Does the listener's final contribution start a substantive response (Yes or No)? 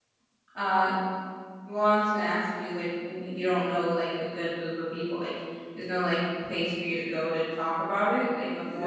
Yes